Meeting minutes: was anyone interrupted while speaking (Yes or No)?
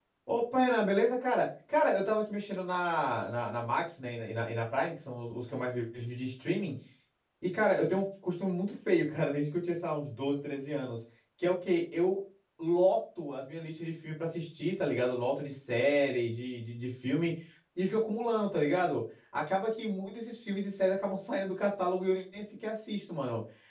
No